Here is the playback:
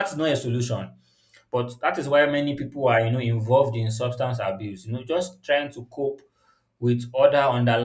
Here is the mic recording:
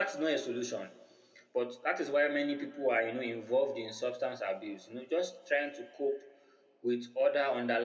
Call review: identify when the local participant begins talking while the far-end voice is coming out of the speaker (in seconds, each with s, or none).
none